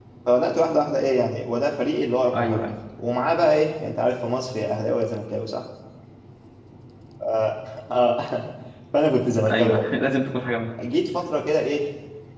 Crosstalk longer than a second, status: none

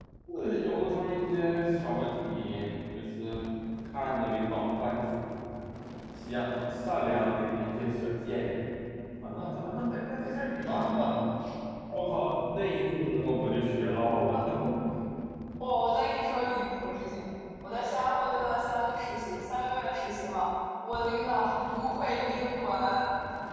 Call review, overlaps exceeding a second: none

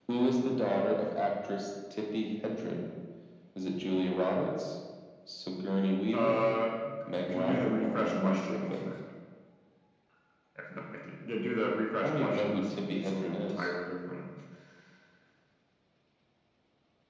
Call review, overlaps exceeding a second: present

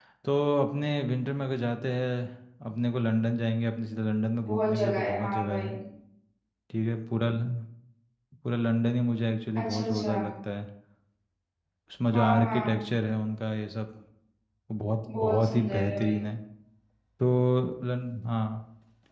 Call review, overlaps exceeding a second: present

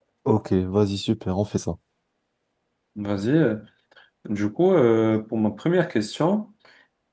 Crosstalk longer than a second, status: none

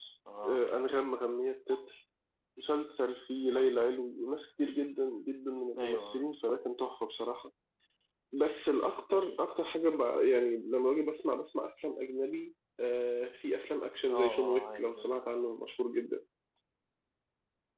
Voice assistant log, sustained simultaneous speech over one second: present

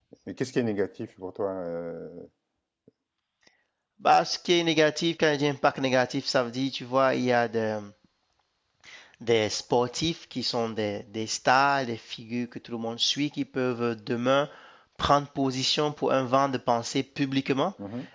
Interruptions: none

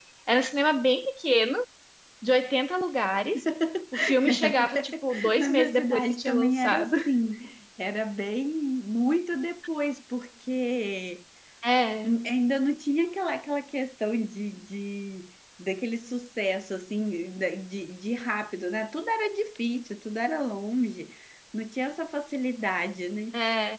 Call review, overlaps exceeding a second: present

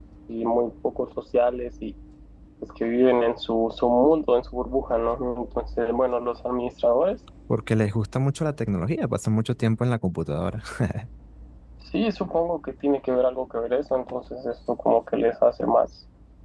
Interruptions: none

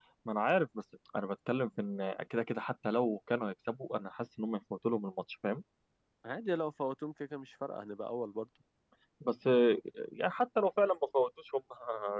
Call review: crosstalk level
none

